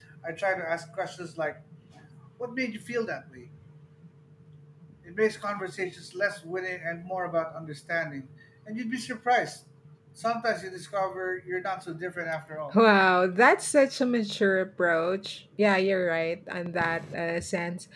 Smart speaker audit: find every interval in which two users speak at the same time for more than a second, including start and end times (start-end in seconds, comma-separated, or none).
none